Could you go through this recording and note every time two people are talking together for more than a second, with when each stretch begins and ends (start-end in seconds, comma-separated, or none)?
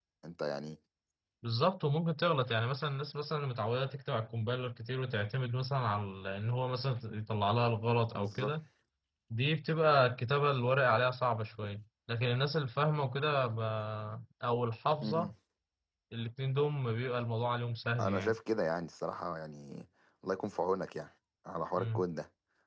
none